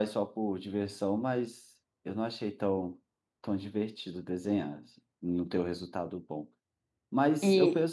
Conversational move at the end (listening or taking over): listening